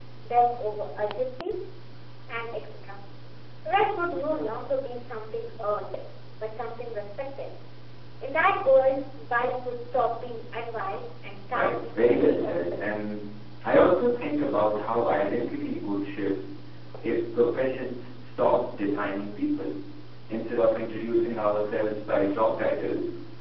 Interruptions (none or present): present